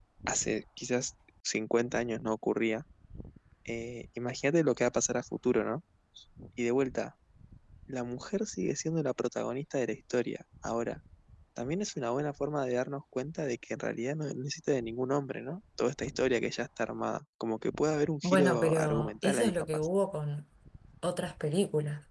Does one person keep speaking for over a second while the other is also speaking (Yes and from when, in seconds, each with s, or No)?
Yes, from 18.2 s